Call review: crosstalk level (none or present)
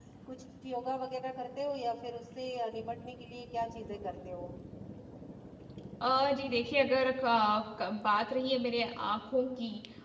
none